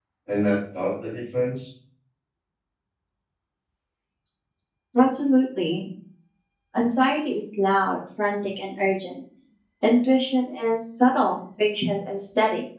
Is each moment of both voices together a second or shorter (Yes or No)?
Yes